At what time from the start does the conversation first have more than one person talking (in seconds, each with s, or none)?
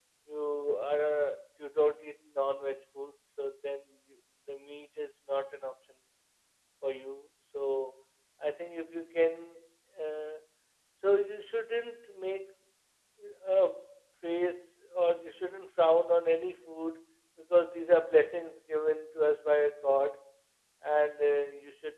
none